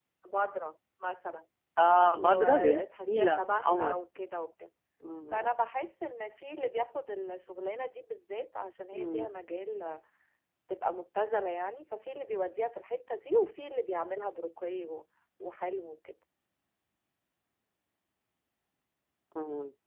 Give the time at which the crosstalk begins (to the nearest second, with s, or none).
2 s